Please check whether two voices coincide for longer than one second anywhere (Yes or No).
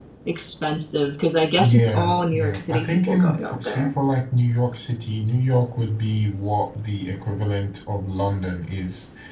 Yes